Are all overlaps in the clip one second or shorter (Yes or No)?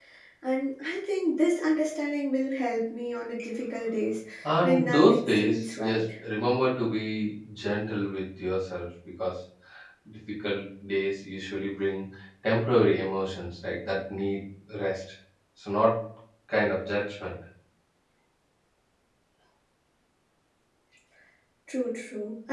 No